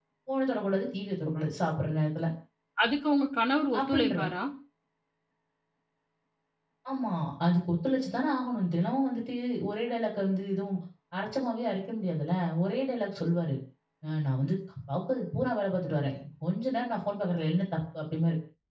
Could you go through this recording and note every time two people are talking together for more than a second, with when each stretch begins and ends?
none

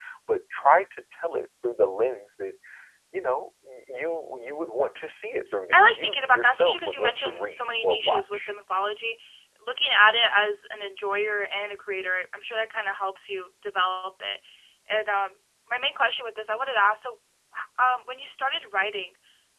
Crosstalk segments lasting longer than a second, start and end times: 5.7-8.5

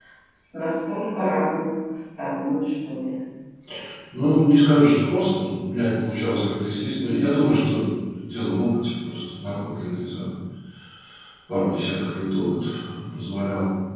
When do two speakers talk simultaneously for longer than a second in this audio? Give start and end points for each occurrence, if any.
none

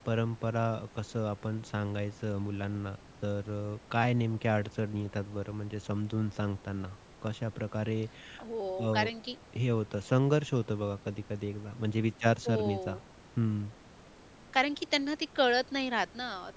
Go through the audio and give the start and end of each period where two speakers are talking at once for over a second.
none

